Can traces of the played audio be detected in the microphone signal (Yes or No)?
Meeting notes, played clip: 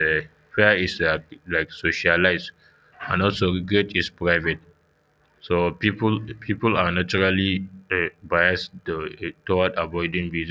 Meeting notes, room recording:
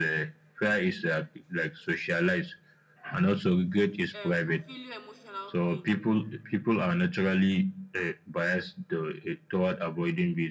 Yes